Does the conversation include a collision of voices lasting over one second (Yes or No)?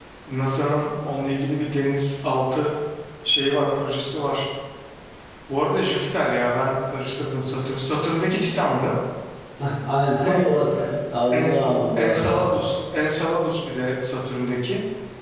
No